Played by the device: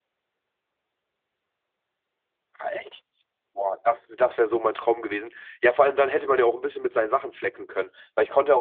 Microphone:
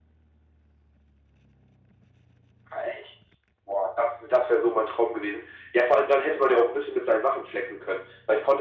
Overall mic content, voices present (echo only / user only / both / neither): echo only